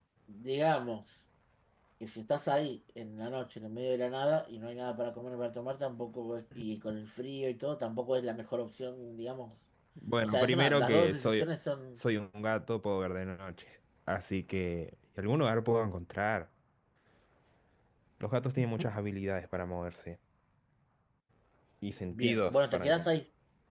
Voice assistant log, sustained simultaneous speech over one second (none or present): present